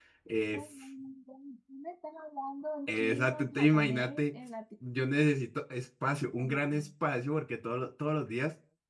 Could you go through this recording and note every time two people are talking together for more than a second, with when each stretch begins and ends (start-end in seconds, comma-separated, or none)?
2.9-4.2